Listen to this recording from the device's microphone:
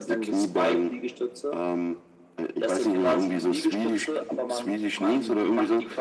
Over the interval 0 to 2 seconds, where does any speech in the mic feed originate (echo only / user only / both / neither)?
echo only